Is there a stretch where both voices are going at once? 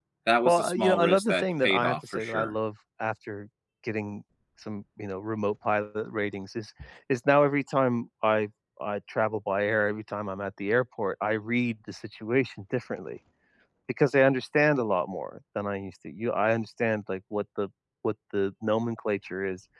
Yes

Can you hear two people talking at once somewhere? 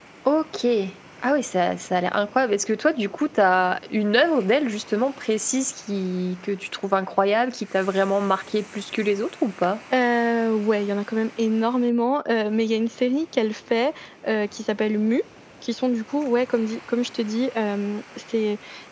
No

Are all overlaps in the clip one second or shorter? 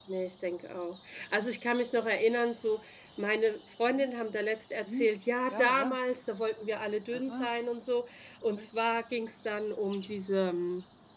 Yes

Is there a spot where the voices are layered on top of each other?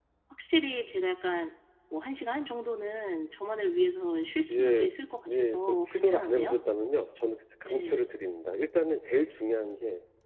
Yes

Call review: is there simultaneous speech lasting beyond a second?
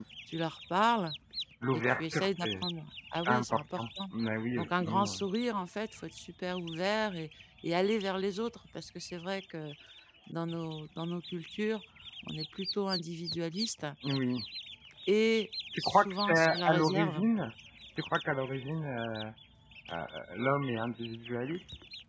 Yes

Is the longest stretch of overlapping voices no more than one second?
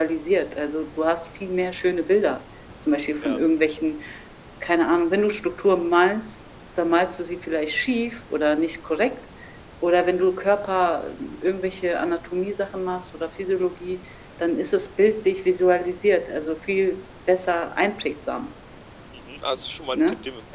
Yes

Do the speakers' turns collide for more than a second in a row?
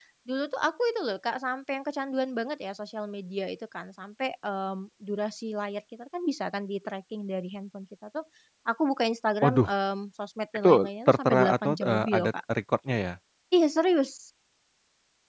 Yes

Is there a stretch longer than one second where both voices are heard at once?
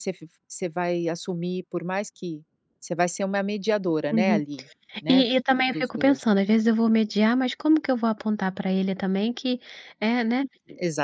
No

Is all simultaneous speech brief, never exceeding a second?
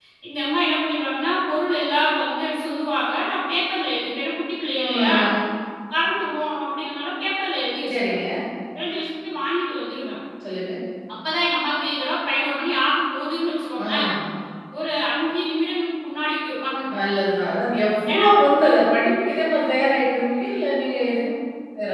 Yes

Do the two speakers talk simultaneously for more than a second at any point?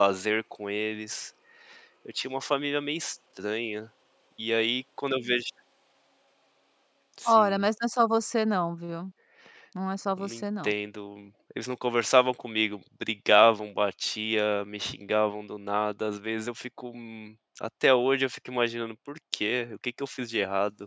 No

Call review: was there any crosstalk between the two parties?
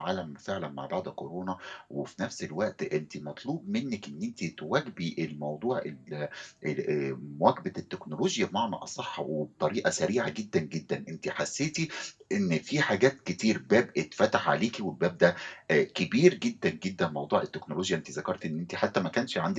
No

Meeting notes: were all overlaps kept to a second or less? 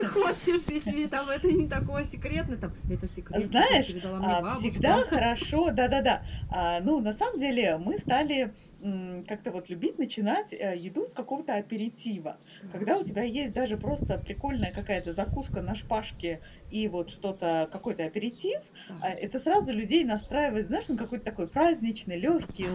No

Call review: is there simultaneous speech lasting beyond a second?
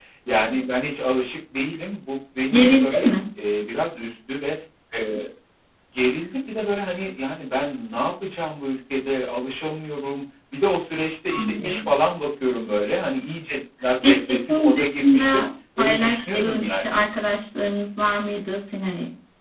Yes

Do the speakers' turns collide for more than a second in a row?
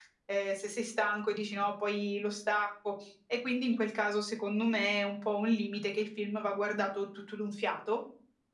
No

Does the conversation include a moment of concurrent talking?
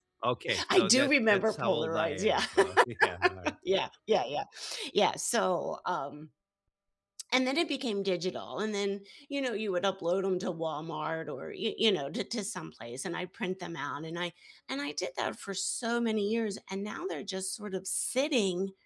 Yes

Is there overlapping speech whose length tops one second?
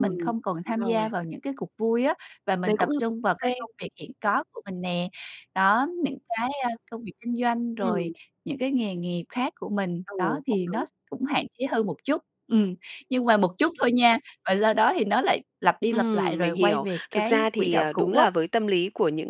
Yes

